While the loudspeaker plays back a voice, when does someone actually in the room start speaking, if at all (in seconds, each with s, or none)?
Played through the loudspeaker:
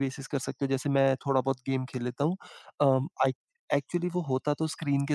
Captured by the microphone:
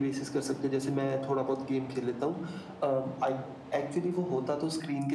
none